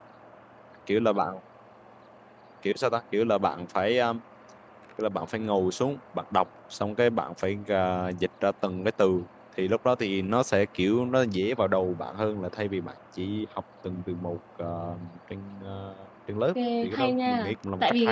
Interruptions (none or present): present